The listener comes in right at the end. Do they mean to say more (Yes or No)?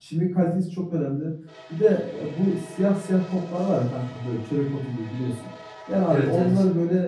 No